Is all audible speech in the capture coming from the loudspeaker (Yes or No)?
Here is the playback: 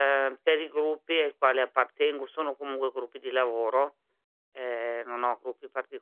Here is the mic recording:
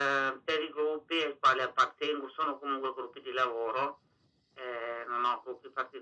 Yes